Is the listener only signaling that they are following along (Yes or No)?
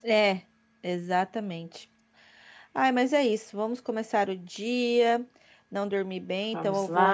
Yes